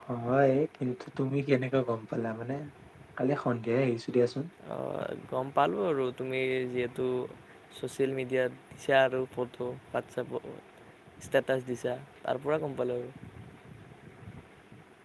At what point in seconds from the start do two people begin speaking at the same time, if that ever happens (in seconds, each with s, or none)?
none